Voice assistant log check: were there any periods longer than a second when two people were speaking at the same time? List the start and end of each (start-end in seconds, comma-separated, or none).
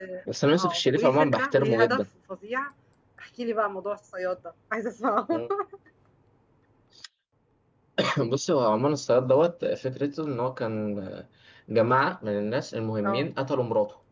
0.6-2.0